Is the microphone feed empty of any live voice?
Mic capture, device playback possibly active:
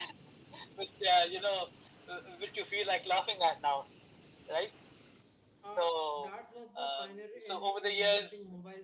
No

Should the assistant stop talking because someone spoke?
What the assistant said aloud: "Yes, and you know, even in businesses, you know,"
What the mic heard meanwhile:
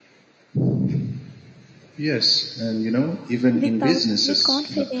Yes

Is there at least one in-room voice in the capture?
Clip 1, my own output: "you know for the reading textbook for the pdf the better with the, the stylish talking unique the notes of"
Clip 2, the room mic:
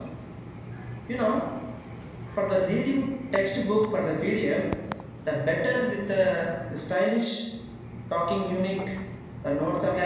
No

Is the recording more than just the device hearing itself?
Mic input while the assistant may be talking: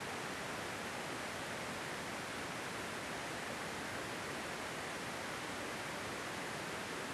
No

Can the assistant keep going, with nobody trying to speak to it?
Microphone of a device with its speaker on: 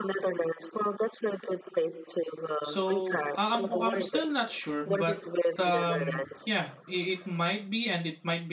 No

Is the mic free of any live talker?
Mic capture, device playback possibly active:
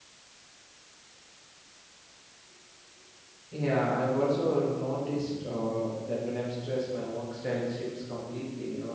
No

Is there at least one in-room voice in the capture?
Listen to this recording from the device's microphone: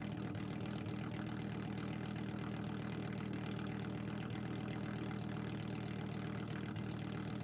No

